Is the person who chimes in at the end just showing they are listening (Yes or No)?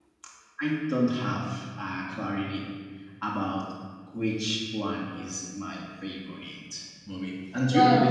No